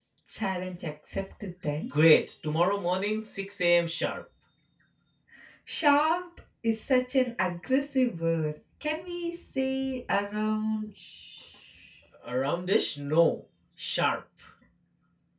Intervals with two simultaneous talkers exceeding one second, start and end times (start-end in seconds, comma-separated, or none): none